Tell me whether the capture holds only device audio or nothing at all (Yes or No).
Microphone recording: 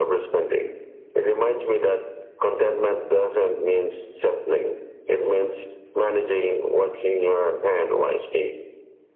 Yes